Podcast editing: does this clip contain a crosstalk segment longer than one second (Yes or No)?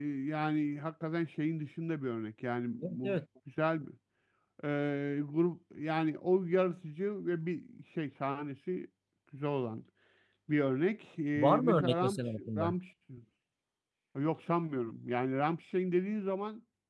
Yes